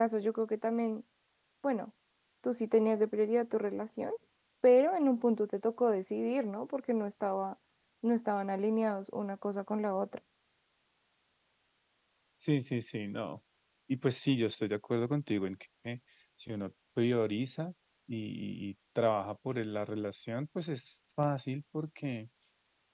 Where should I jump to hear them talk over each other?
none

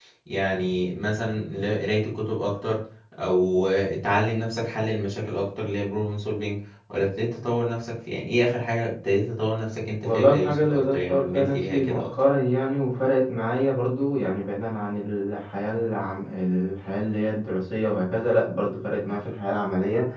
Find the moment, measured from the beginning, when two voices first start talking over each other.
10.0 s

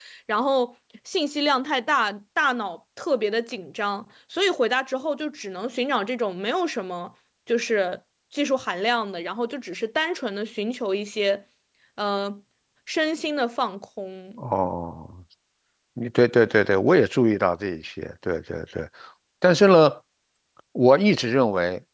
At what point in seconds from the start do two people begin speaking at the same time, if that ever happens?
none

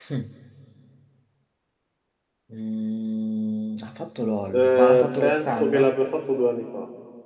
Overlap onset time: 4.5 s

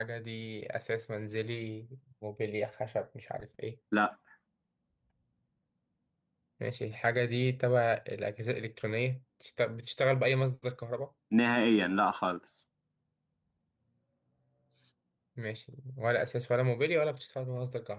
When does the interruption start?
none

